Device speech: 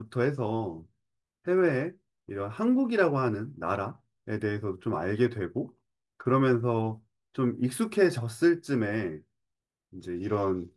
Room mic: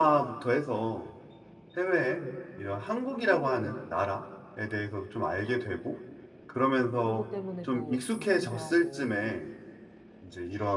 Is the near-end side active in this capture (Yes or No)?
Yes